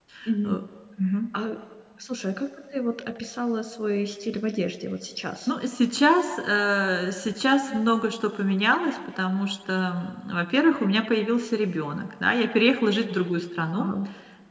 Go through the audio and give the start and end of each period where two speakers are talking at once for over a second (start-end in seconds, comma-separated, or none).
none